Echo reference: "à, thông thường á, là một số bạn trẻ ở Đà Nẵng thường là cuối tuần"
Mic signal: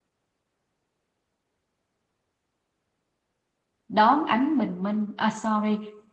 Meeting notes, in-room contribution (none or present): present